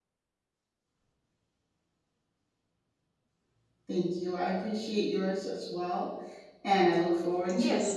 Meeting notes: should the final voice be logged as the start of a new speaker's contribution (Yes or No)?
Yes